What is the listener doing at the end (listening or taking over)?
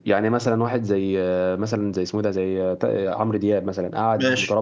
listening